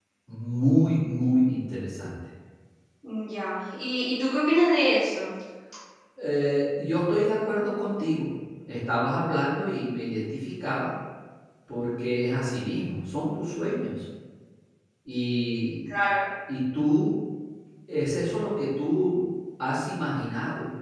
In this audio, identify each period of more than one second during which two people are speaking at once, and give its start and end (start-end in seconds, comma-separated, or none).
none